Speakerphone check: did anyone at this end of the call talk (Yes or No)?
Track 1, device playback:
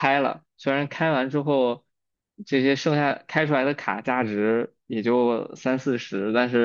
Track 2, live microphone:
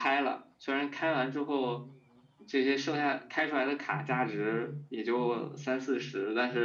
Yes